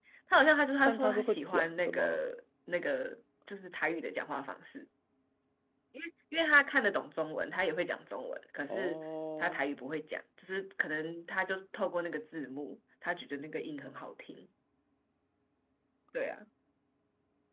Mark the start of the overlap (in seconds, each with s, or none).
0.8 s